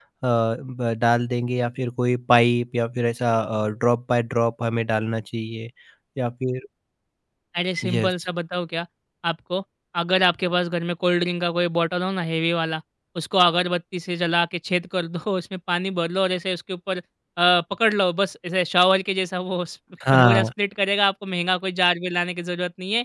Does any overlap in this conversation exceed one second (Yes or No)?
No